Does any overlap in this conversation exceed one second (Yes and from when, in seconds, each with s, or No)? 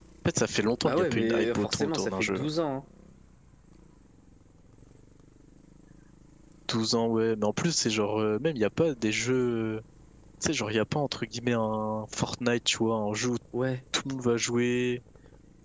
Yes, from 0.8 s